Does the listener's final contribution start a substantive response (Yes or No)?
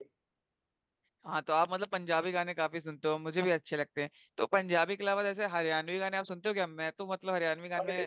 No